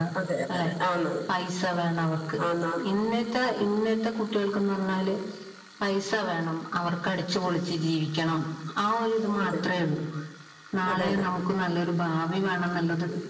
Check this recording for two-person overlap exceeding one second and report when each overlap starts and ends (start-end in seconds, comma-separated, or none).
none